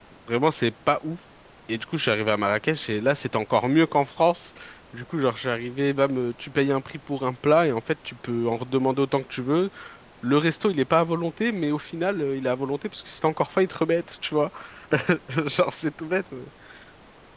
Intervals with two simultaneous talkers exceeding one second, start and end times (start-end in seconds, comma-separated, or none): none